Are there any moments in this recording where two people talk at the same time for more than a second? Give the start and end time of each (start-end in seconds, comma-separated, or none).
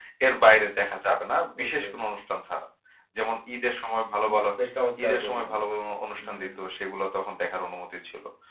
none